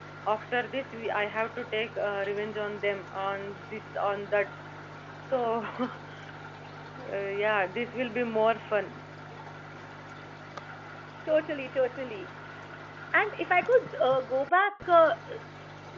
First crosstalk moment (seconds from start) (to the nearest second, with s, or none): none